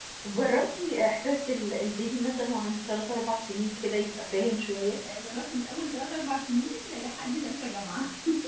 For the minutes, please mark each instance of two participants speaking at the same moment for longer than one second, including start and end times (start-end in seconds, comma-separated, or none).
none